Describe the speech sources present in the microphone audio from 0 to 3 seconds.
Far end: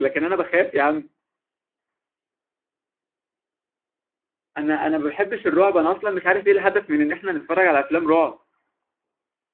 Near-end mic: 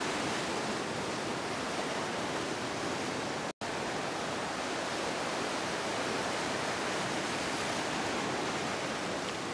neither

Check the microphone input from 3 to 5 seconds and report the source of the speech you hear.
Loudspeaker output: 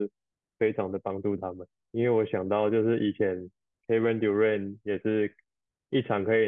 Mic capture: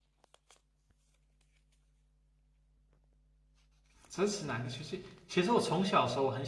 user only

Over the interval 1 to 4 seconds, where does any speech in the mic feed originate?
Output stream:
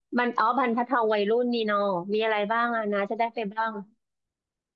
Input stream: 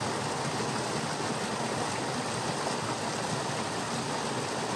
neither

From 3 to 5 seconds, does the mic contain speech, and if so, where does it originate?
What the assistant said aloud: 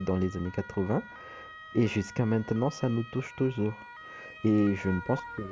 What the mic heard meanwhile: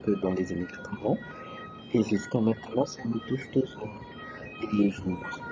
echo only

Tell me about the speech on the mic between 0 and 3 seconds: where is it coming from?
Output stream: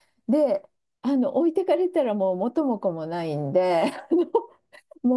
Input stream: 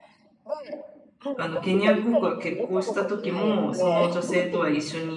both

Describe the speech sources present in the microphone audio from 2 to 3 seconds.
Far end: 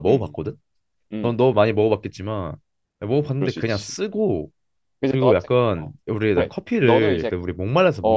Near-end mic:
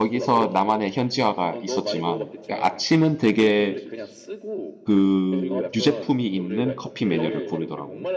both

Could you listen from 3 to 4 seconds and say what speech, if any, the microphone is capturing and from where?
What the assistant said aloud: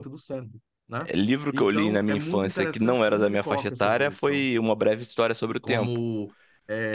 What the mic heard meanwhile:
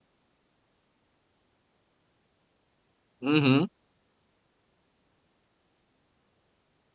user only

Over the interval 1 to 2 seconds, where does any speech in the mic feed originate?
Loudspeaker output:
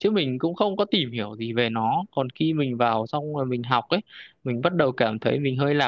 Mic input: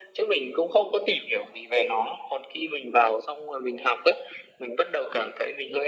echo only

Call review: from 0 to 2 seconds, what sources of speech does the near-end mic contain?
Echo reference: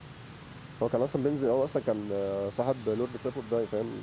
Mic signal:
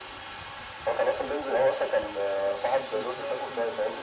echo only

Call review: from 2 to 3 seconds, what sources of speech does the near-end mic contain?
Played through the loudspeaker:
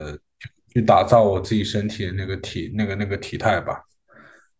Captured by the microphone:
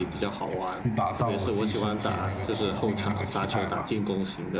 both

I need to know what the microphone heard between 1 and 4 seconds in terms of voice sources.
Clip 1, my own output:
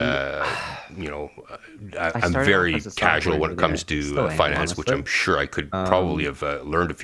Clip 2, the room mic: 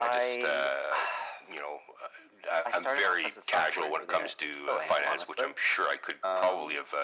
echo only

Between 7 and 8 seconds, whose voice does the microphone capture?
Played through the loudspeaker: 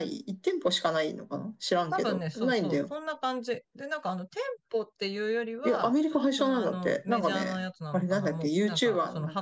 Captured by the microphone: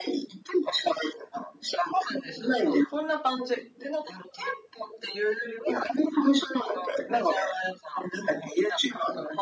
echo only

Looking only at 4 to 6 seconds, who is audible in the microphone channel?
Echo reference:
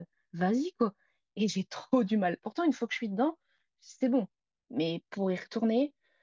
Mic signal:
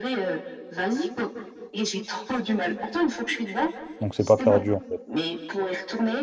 both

